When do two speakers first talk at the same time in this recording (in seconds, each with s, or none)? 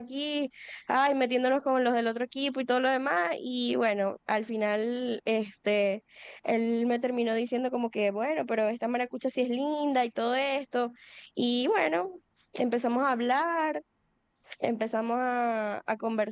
none